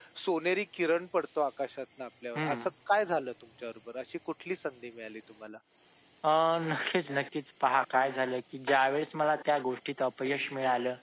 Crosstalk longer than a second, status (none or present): none